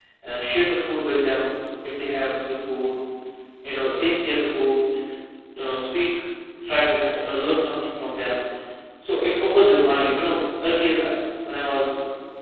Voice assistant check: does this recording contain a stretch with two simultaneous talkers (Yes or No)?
No